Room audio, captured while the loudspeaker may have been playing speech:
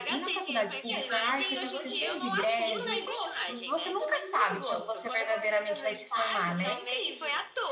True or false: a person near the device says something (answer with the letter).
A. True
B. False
A